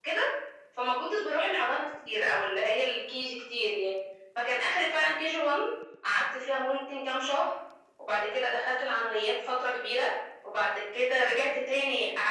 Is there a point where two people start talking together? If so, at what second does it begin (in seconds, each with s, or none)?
none